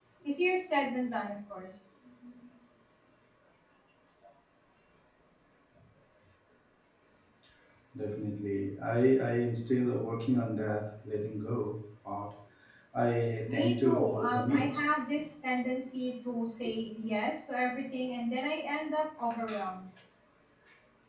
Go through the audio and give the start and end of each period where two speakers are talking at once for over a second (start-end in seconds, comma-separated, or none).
13.5-14.8